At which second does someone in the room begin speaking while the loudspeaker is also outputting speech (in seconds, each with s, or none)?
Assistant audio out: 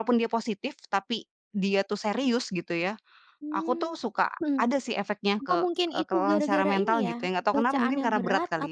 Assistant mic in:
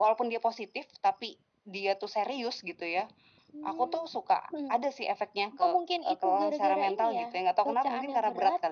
none